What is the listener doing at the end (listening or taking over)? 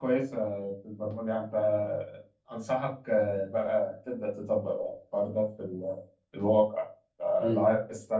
listening